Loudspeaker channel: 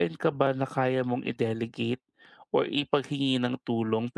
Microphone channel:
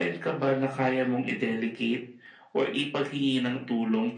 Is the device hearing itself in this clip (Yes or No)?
Yes